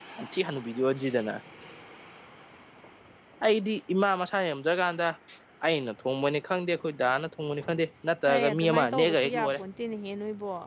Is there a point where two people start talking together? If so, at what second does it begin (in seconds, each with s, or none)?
8.3 s